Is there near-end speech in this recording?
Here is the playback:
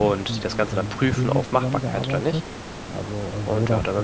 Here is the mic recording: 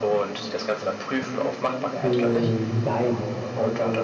Yes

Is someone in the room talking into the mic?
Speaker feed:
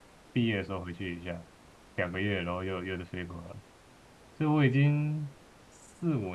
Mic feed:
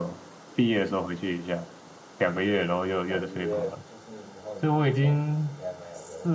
Yes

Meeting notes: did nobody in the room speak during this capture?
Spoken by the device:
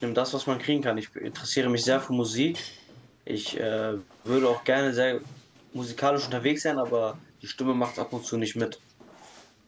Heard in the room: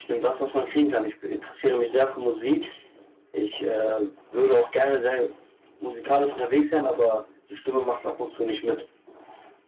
Yes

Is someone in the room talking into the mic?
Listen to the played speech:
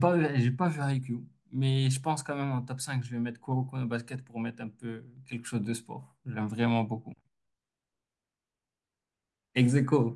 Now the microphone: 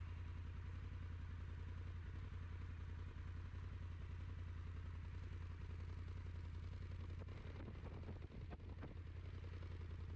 No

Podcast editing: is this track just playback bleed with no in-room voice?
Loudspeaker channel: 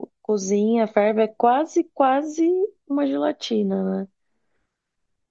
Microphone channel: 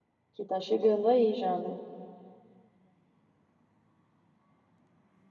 No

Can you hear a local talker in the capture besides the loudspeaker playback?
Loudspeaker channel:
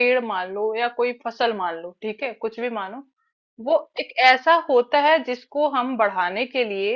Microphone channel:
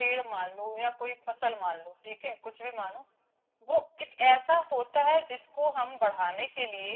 No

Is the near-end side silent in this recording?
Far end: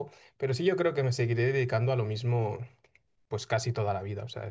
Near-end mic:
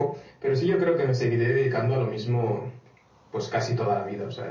Yes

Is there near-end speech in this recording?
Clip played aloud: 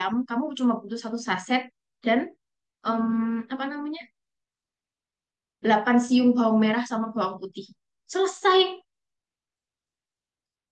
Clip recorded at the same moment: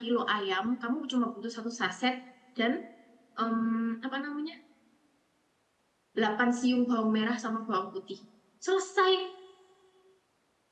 No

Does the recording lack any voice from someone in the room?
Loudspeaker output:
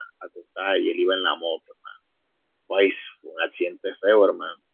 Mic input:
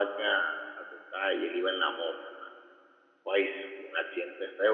Yes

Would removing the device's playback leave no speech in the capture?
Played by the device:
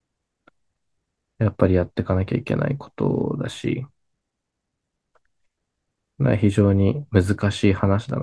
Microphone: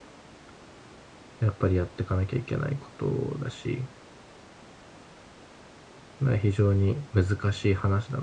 Yes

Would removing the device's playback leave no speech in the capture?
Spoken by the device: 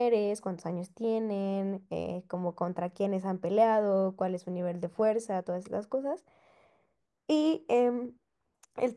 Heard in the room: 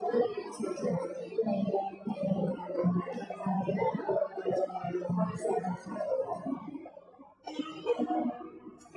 Yes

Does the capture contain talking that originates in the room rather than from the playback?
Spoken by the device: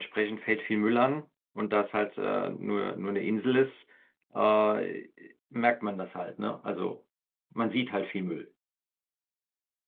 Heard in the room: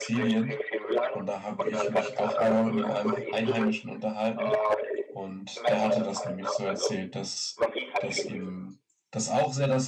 Yes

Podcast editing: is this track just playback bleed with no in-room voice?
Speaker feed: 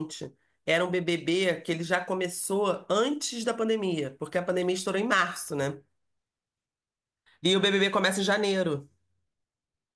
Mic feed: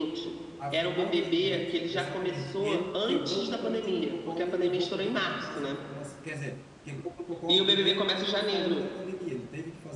No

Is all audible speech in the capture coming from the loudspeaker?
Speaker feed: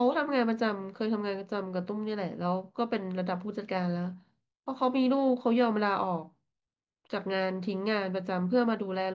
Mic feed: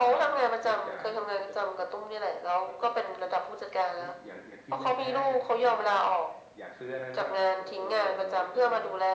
No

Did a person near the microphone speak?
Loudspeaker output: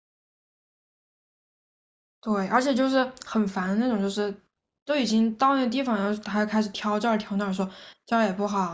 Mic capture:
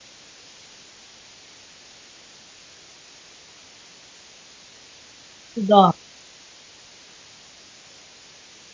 Yes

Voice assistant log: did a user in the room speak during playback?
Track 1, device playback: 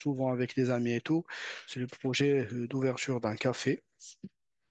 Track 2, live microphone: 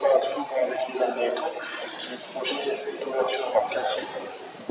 No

